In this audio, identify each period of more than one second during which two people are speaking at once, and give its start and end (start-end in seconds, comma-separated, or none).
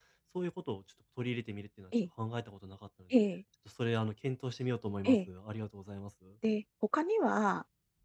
none